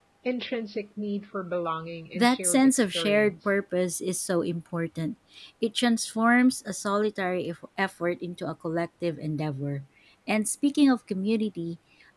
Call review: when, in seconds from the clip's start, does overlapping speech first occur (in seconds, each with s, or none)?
2.2 s